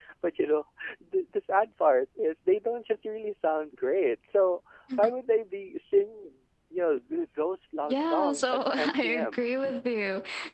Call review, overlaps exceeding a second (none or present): present